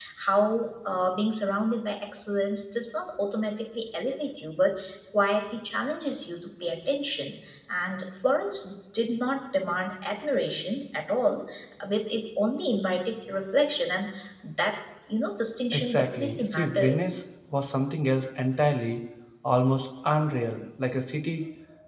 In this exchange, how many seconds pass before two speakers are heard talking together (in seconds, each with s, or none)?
15.7 s